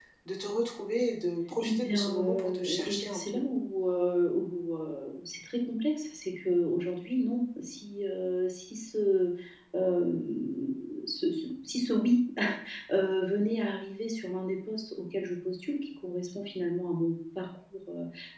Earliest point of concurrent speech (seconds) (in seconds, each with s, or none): 1.6 s